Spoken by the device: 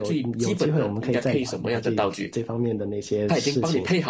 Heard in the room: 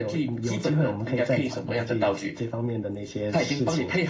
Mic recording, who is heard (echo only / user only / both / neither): echo only